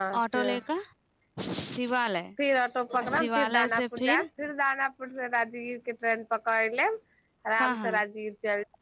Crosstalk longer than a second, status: present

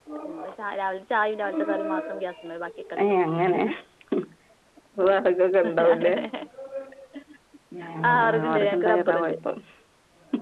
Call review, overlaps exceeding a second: present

